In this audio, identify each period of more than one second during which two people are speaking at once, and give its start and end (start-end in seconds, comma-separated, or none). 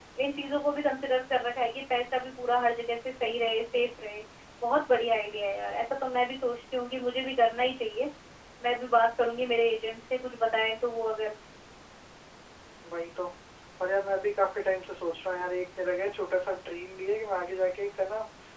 none